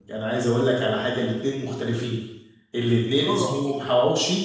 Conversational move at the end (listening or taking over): listening